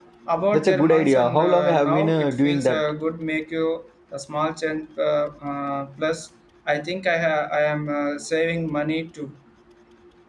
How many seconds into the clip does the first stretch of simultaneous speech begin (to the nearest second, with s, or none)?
1 s